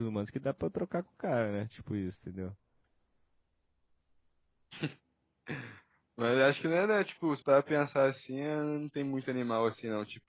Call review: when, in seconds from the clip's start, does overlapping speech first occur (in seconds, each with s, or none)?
none